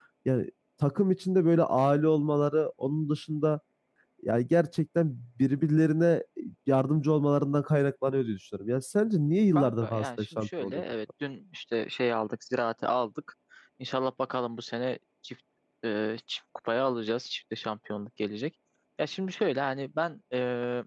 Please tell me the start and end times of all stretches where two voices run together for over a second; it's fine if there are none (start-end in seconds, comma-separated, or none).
9.6-10.8